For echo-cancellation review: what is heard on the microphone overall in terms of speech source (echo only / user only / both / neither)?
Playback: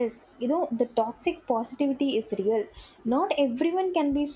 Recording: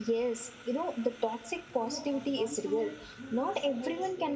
both